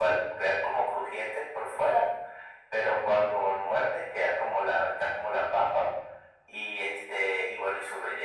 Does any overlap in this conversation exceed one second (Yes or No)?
No